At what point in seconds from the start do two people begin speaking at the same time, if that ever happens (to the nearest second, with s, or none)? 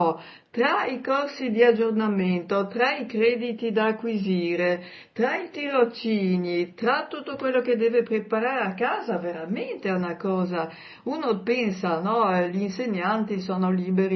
none